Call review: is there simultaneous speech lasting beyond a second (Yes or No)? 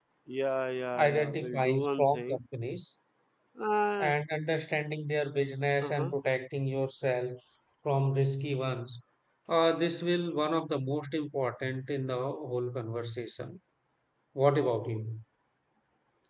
Yes